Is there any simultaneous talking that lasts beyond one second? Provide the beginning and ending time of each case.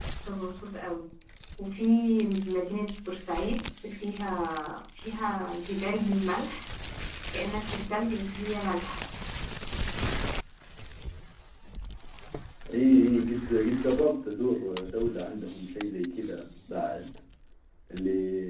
none

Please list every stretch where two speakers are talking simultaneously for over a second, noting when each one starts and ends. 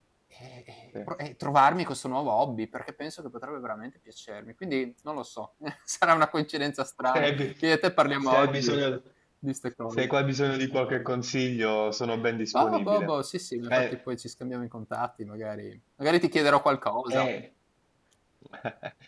none

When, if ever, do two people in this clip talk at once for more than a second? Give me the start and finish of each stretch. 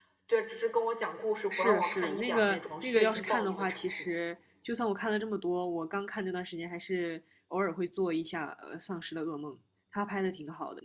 1.5-4.1

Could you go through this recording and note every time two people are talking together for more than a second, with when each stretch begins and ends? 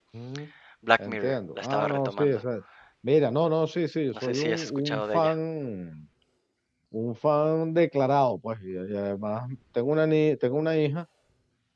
1.1-2.4, 4.1-5.4

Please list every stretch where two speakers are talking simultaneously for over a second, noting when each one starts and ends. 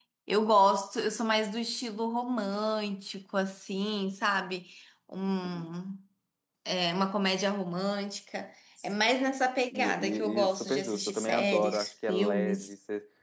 9.7-12.7

